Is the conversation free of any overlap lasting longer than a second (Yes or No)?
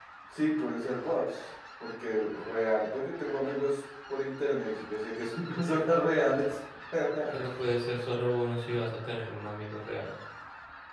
Yes